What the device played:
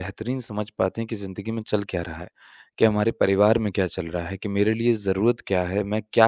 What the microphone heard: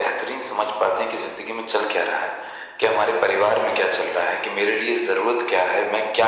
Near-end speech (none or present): none